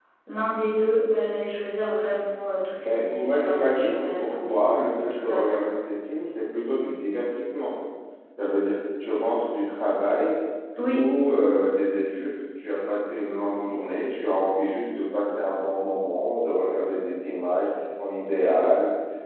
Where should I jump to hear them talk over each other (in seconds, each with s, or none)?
2.8 s